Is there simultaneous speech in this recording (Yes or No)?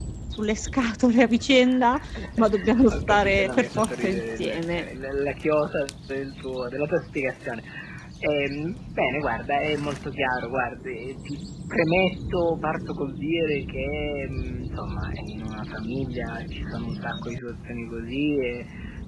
Yes